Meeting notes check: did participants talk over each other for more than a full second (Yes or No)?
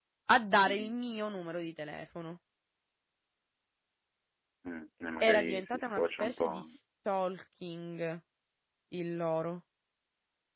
Yes